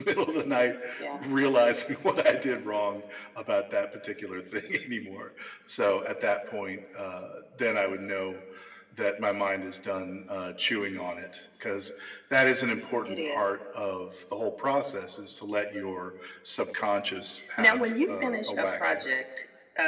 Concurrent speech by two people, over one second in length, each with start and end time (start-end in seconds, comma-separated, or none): 17.6-19.1